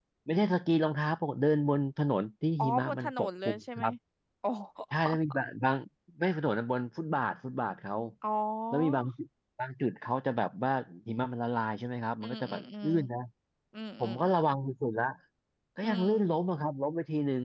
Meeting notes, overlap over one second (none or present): present